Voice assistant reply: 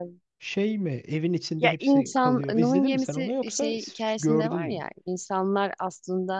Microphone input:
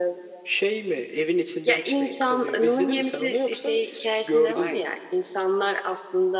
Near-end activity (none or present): none